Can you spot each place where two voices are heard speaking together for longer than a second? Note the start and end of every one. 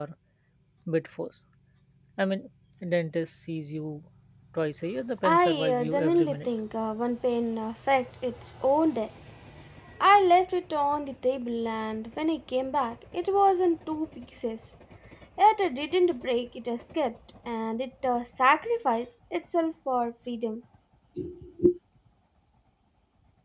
5.2-6.5

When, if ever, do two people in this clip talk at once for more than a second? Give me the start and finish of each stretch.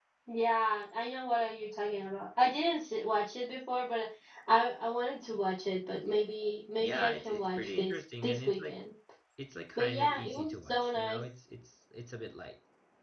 6.8-8.8, 9.8-11.2

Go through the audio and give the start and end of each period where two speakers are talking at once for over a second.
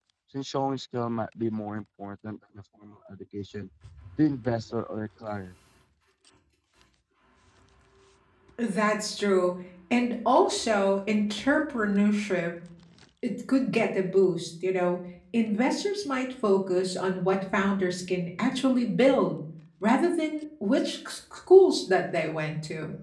none

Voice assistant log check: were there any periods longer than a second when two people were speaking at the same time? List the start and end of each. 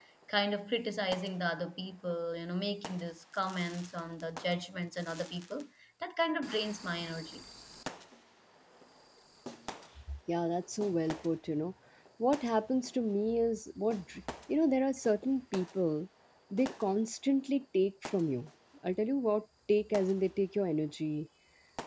none

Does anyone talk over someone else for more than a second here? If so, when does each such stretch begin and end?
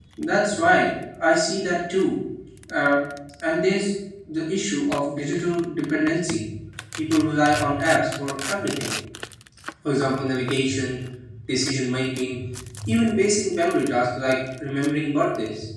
none

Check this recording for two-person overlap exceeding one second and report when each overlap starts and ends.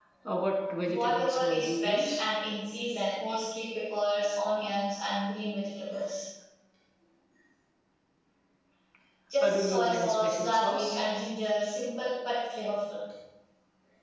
0.9-2.2, 9.4-11.0

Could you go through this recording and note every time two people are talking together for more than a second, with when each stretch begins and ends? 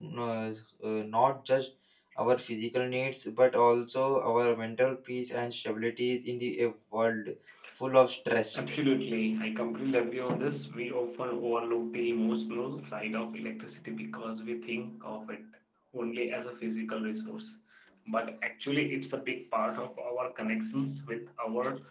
none

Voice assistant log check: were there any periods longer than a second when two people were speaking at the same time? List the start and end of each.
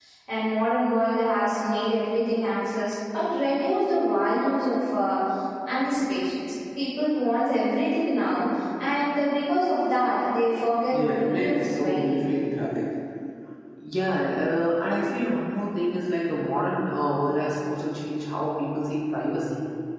10.9-12.2

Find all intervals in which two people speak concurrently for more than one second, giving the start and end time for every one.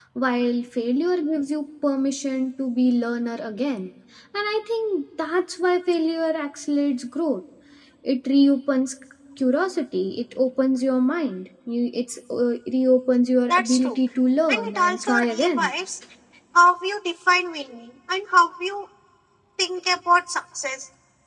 14.5-15.7

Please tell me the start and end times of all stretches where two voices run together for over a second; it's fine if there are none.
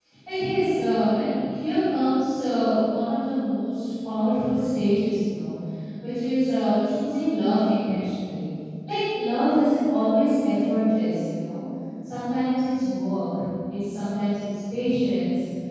none

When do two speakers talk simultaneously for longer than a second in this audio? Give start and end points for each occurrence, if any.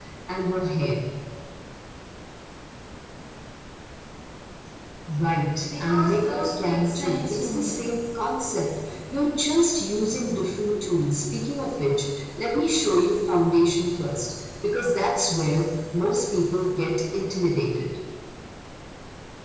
5.8-7.8

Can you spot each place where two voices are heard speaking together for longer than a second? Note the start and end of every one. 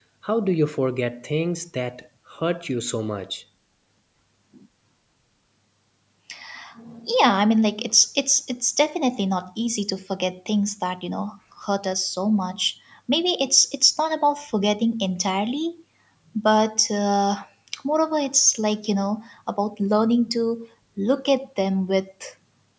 none

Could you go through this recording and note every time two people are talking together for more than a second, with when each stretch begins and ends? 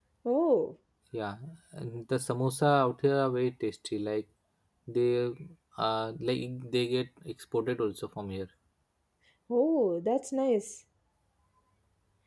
none

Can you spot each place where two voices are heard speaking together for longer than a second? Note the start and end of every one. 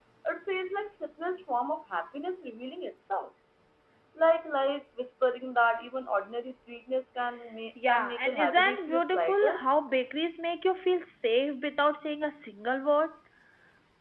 7.9-9.6

